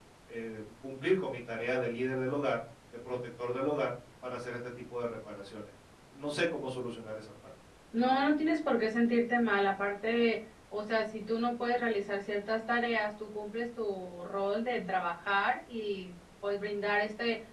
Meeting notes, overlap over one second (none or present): none